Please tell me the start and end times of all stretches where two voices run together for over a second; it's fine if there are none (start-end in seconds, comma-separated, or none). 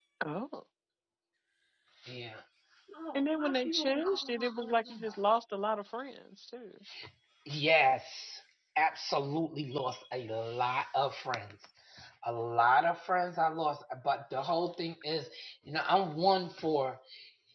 3.1-5.2